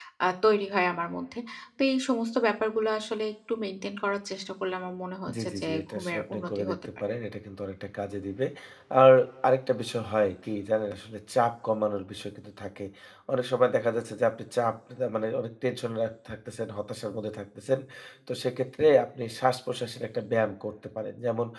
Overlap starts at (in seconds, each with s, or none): 5.3 s